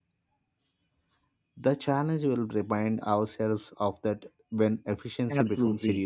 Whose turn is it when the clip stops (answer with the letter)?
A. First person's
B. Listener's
B